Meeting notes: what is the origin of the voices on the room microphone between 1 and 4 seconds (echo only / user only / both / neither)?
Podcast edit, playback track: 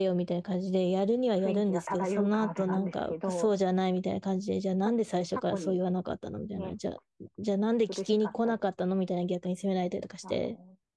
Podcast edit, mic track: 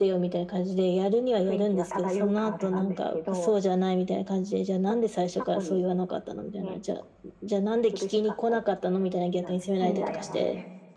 echo only